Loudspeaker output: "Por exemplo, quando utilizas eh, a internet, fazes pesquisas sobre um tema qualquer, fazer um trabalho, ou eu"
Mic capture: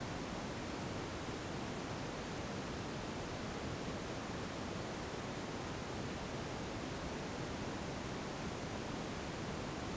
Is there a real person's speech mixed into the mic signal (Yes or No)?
No